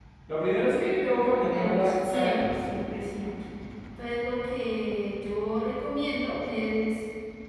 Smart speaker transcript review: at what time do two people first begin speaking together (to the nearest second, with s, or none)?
1 s